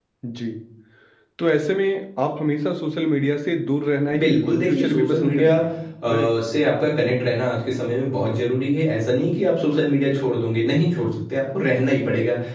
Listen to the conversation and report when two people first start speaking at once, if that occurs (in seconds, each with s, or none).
4.1 s